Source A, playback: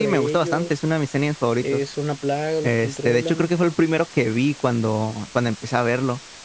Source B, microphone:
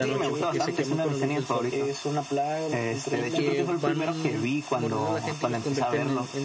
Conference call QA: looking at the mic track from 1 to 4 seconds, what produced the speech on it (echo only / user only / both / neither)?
both